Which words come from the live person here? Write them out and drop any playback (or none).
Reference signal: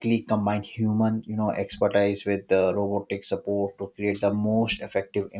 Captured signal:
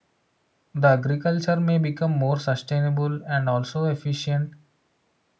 the agriculture may become more sustainable and also efficient